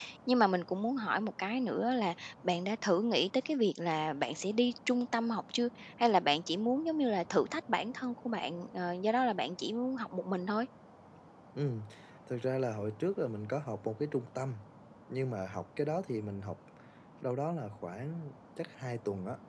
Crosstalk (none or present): none